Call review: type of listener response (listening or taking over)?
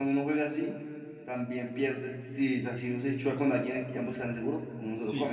taking over